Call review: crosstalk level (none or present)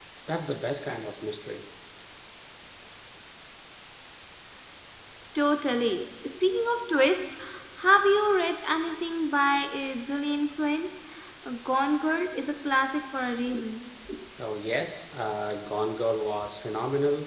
none